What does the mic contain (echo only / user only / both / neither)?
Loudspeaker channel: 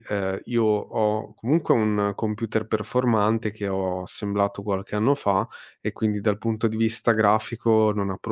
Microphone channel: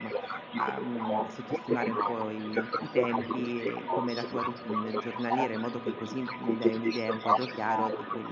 both